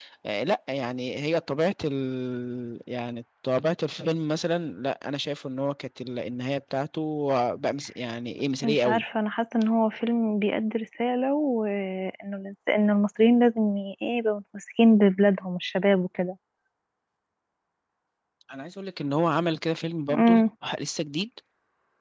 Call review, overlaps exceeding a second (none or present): none